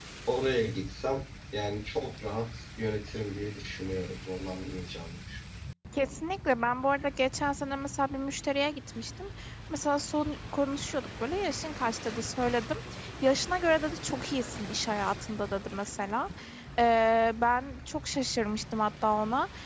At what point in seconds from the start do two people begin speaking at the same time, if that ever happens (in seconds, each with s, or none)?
none